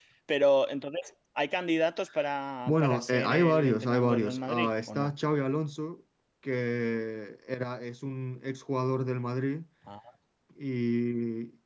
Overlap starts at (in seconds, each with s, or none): 2.7 s